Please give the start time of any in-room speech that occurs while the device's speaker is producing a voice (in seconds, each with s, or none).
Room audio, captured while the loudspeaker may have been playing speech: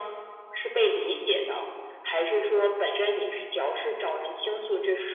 none